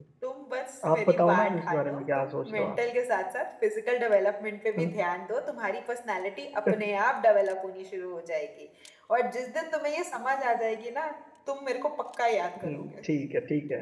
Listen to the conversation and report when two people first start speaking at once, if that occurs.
0.9 s

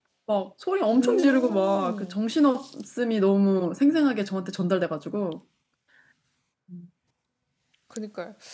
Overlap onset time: 1.0 s

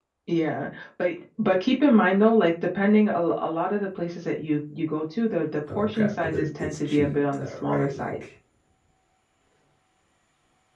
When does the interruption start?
5.7 s

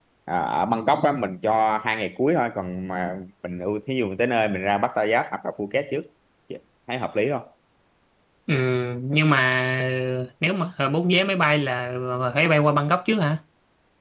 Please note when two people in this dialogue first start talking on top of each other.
none

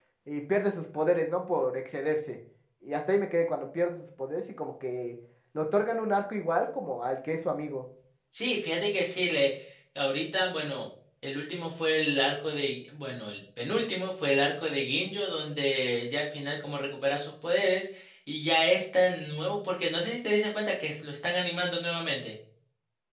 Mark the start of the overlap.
none

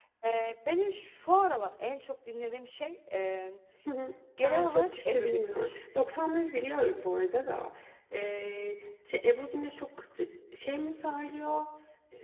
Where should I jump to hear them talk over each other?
4.4 s

